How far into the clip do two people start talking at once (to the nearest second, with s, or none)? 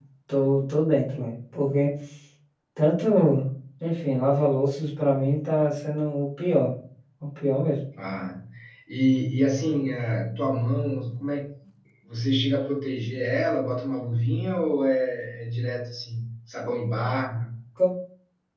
none